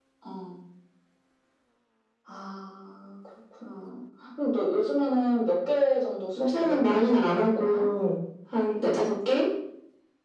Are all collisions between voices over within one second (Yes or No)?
No